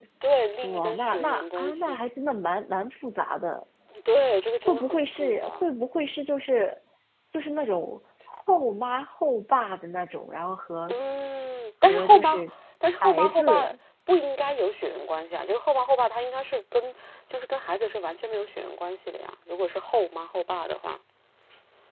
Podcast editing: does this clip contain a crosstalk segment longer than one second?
Yes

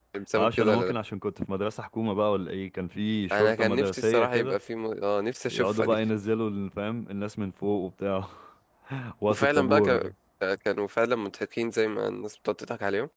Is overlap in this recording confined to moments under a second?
No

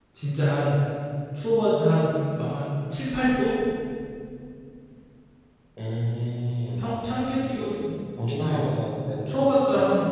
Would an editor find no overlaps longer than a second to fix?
Yes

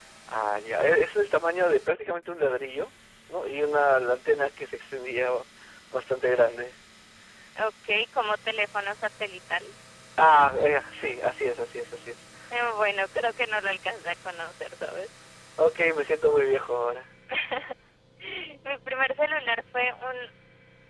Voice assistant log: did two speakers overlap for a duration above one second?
No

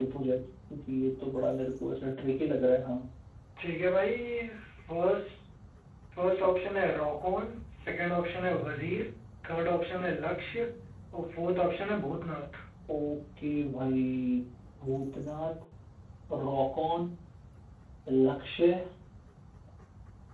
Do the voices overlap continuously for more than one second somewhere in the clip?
No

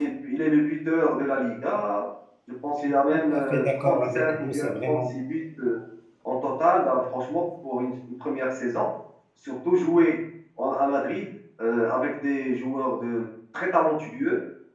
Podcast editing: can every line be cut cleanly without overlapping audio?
No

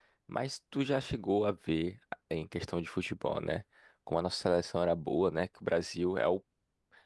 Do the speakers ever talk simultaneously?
No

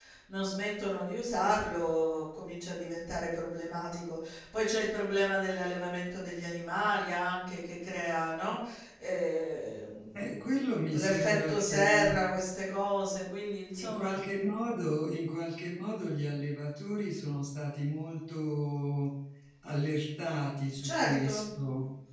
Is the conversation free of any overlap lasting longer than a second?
No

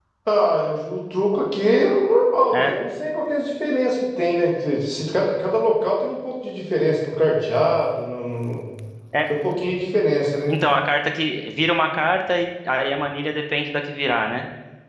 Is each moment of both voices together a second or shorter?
Yes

